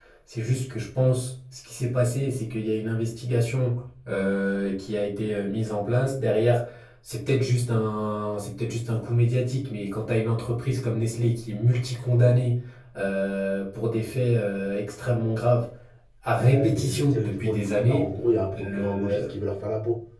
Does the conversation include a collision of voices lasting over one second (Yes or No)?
Yes